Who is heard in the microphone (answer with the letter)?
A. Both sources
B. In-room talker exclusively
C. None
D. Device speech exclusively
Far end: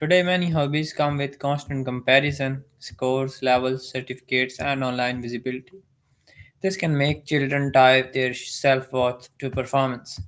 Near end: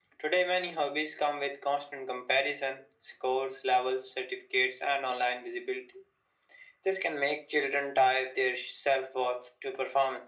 D